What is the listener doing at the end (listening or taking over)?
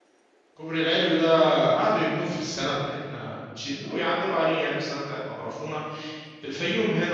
listening